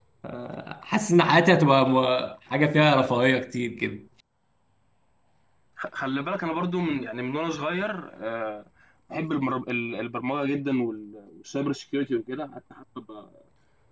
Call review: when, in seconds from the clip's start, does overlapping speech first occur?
none

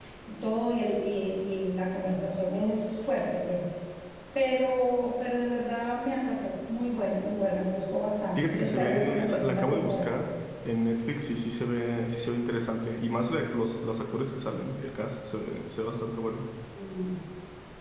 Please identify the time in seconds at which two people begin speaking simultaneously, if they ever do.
8.4 s

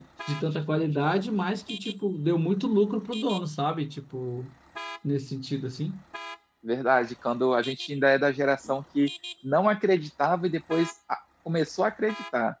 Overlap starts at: none

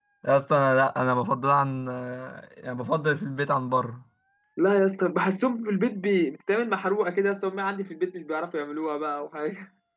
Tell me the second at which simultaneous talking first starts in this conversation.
none

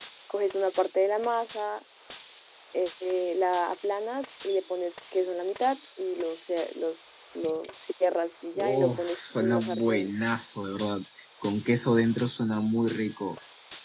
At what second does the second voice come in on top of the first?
8.6 s

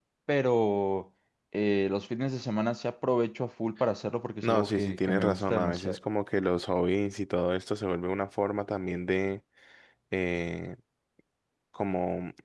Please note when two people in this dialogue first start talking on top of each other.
4.4 s

